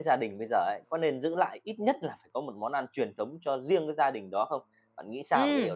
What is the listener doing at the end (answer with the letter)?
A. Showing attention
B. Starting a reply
B